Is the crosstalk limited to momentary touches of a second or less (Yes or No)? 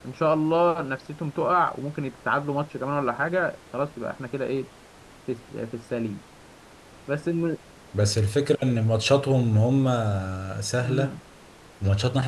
Yes